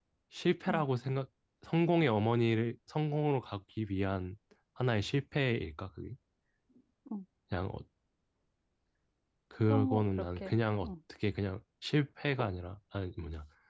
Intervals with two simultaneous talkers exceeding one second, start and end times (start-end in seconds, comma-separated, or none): 9.7-10.9